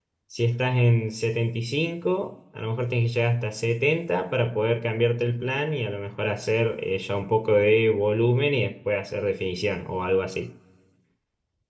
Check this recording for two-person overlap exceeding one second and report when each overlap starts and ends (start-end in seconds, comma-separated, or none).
none